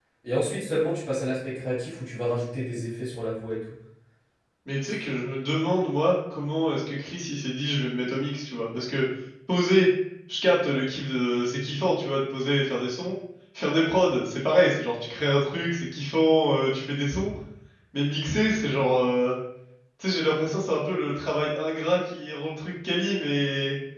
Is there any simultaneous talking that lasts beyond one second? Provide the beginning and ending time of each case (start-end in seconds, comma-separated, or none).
none